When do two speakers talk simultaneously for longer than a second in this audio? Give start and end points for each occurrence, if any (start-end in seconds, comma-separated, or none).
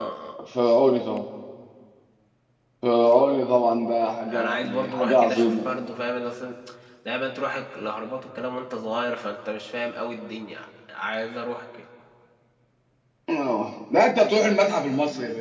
4.1-5.7